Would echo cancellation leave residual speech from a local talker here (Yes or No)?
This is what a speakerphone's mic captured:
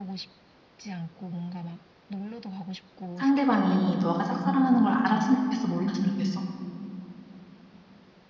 Yes